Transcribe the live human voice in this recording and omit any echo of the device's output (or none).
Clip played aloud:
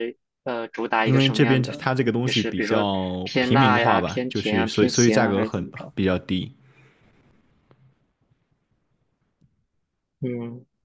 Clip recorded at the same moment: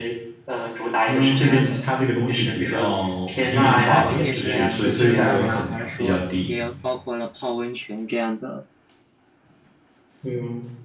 它是仅仅是蒸桑拿，还是说也有包括了泡温泉这样的